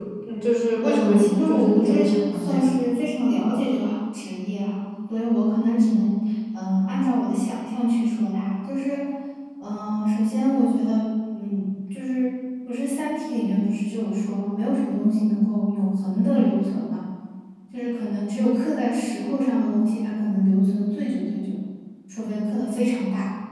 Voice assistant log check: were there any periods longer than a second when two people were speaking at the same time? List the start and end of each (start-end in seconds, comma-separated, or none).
0.8-2.8